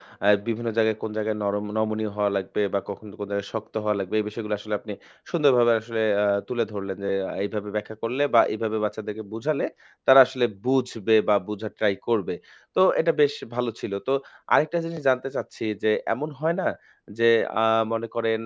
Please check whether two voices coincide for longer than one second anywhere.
No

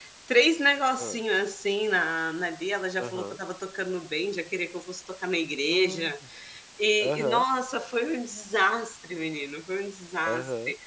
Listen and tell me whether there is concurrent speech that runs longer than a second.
No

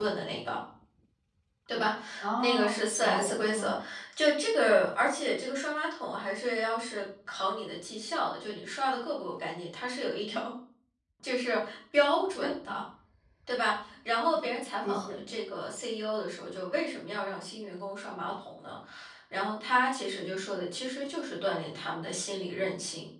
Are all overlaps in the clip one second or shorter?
No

